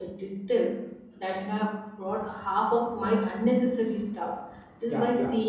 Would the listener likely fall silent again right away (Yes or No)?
Yes